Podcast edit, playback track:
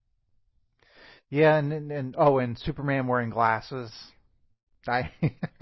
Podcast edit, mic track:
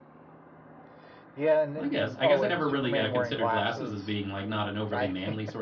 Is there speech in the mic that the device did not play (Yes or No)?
Yes